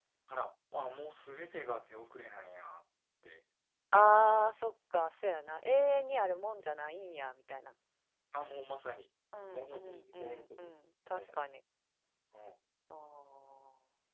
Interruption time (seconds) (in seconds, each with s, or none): 9.3 s